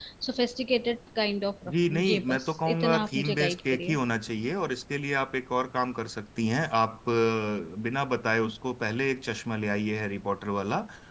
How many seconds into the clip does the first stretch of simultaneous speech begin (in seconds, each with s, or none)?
1.7 s